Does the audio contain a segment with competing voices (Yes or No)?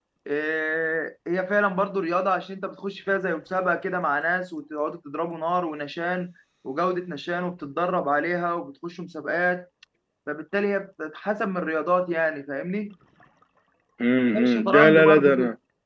Yes